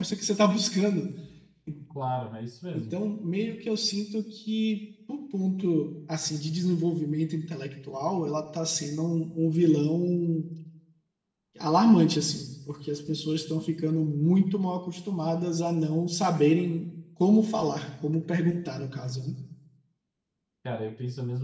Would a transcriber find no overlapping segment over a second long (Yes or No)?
Yes